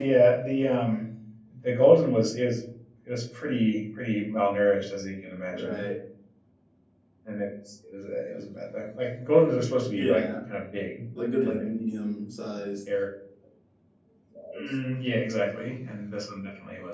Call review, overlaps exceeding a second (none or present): none